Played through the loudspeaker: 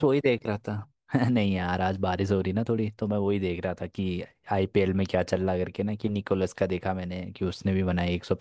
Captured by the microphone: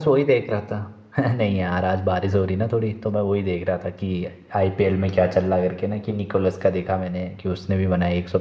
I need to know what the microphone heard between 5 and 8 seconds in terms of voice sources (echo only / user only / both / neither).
echo only